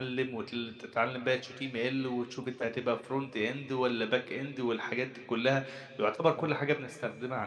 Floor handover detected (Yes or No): No